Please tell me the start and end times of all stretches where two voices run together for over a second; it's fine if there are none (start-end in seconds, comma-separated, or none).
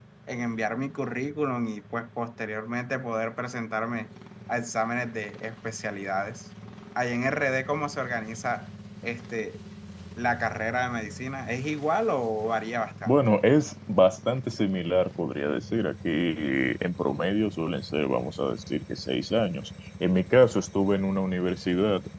none